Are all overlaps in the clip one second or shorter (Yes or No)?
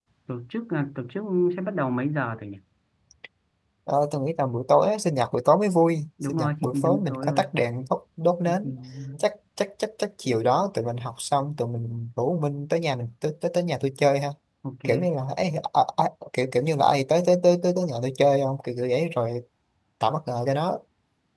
No